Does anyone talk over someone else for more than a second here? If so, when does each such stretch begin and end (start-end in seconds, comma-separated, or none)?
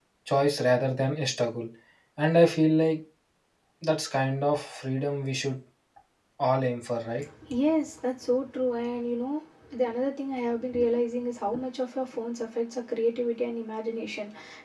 none